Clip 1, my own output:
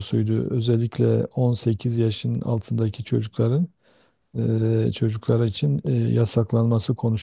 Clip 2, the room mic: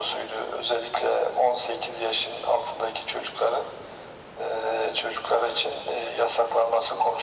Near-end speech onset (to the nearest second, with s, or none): none